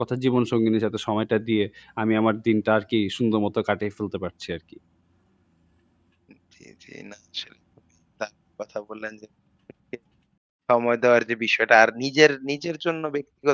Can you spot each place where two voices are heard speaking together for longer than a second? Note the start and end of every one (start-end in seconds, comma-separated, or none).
none